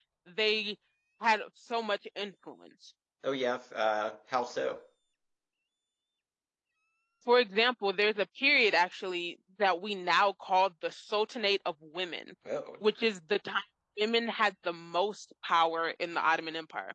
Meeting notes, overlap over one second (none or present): none